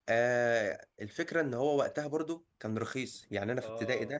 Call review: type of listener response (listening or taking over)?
listening